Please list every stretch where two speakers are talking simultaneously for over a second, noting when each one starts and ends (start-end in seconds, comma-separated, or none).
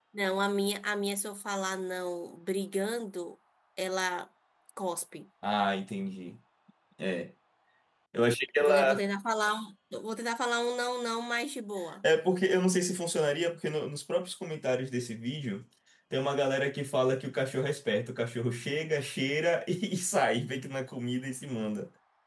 none